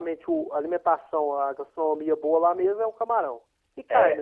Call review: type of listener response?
taking over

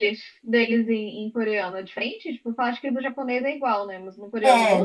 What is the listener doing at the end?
taking over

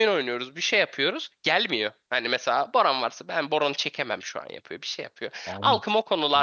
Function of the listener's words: taking over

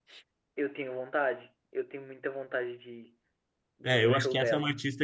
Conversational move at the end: taking over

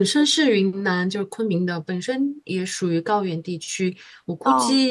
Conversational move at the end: listening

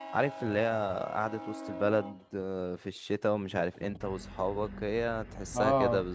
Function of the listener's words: taking over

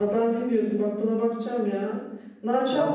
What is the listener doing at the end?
taking over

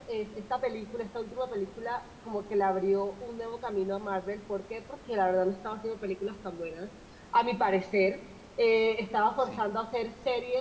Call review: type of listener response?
listening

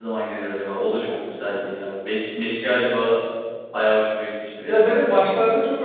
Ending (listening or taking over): taking over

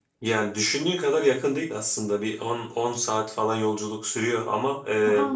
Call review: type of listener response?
listening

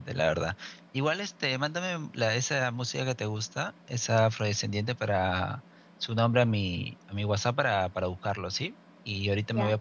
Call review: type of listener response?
listening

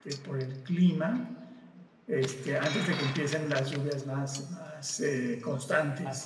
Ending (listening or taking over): taking over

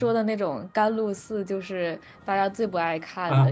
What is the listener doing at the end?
taking over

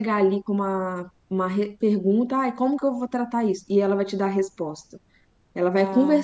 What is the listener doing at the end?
listening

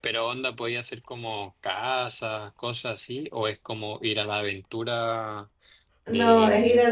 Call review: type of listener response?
taking over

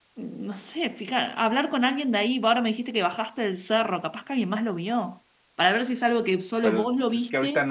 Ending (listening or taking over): taking over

